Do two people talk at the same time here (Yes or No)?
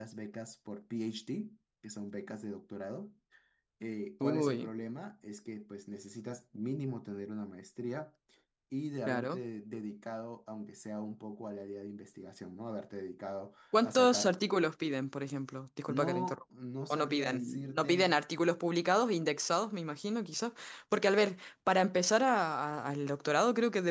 Yes